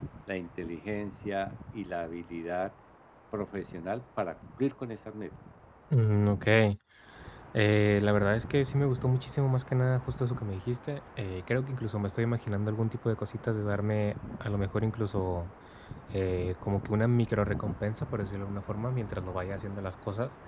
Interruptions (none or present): none